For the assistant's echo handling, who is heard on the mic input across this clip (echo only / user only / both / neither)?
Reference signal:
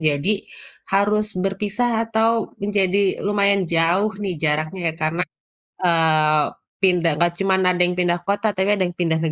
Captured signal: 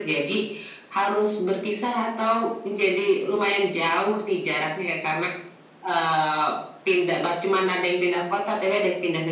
echo only